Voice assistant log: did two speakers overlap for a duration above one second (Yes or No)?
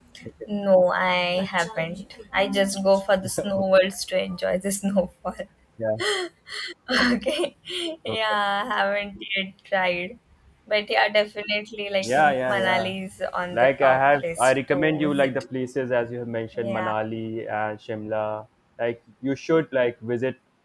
Yes